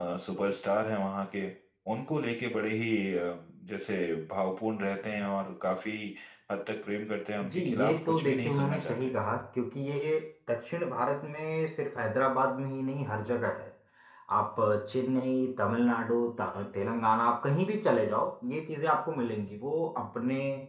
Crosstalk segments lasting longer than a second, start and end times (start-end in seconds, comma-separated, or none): 7.5-9.1